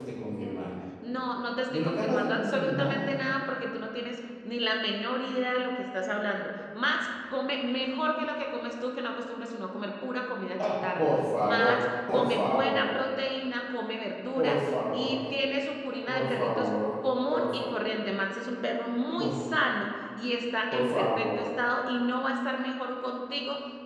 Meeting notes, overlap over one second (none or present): present